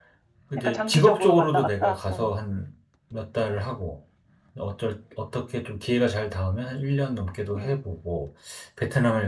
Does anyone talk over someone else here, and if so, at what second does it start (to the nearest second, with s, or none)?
1 s